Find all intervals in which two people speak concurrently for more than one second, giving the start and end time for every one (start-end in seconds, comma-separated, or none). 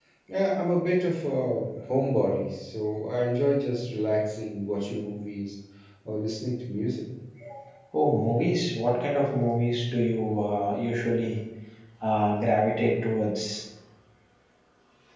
none